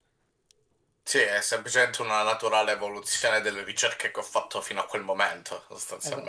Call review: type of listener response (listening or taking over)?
taking over